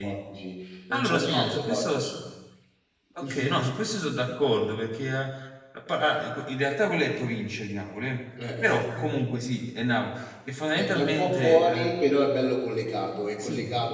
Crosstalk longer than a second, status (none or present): present